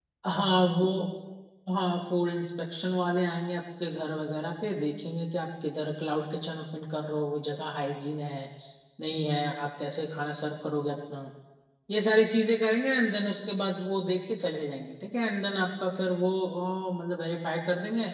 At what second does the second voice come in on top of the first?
none

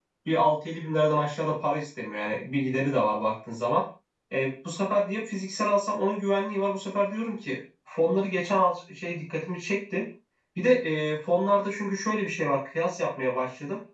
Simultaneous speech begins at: none

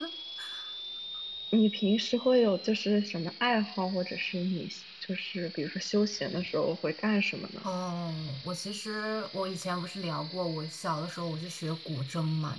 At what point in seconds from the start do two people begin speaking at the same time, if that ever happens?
none

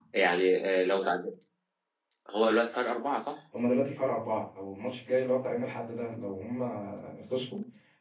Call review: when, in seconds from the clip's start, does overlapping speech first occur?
none

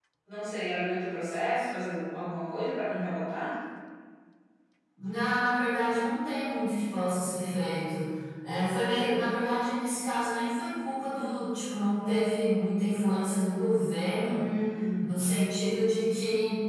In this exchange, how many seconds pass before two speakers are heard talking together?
none

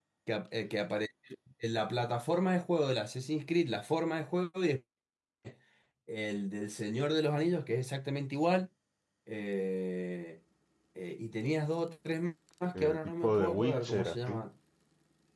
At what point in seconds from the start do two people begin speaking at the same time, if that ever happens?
12.7 s

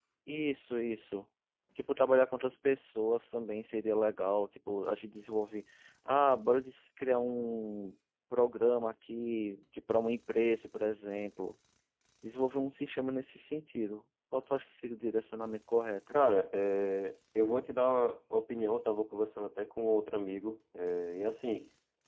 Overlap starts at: none

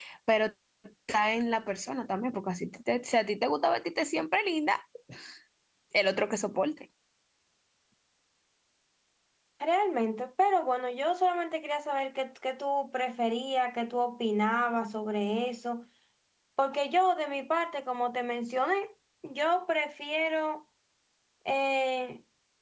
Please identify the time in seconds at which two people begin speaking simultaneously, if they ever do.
none

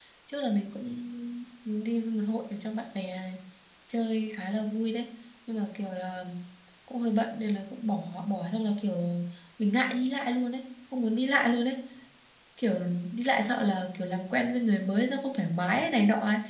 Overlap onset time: none

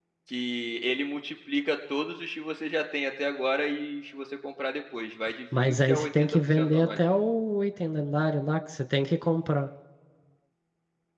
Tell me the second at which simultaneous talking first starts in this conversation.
5.5 s

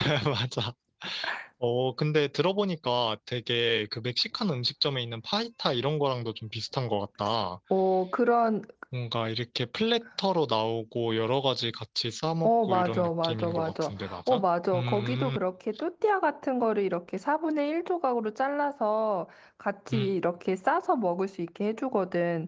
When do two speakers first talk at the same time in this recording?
12.4 s

